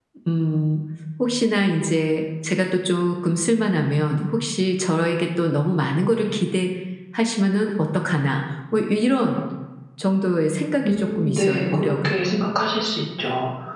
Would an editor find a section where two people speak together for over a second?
Yes, from 10.9 s

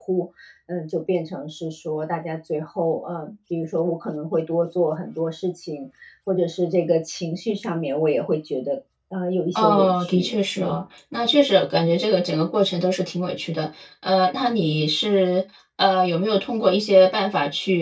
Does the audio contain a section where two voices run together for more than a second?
Yes, from 9.6 s

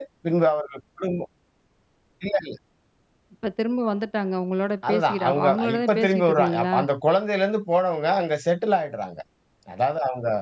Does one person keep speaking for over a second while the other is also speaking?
Yes, from 4.8 s

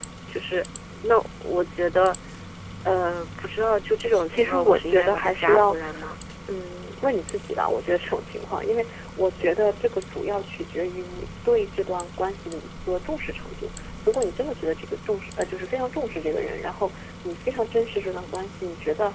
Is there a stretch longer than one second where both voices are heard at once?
Yes, from 4.3 s

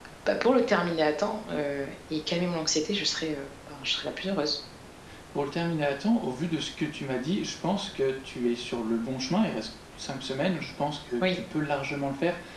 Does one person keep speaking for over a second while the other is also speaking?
No

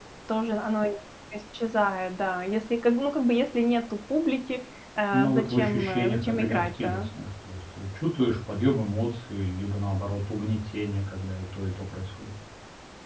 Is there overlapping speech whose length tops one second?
Yes, from 5.1 s

